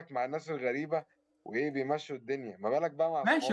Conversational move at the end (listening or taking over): taking over